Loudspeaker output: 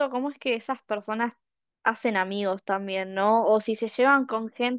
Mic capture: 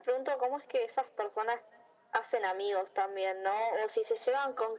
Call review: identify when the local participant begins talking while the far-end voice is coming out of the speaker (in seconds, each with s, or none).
none